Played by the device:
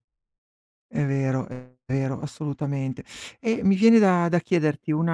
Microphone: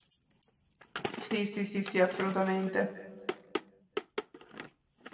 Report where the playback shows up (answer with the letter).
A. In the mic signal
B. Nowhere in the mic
B